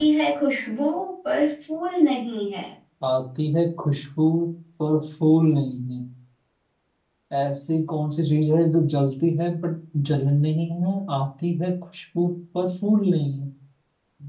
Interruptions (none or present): none